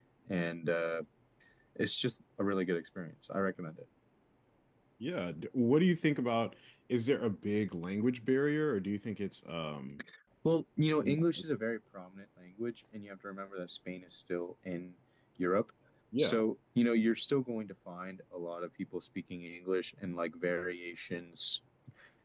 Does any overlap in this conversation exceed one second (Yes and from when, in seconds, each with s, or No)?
No